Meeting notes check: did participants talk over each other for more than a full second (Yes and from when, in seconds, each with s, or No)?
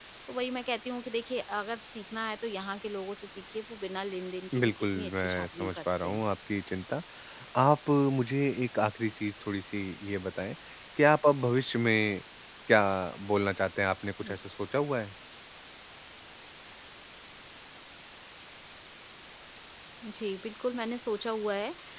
Yes, from 4.5 s